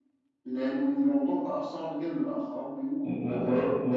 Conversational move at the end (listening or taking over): taking over